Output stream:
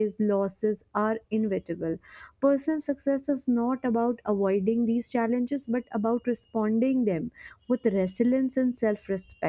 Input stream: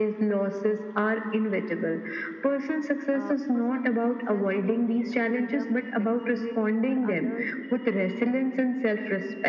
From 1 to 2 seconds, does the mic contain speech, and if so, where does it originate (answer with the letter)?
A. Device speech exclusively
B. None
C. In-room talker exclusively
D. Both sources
A